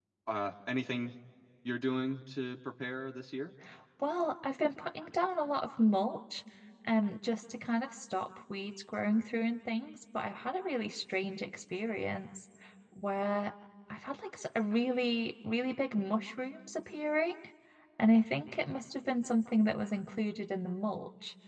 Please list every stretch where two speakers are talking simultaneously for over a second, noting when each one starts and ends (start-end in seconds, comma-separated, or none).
none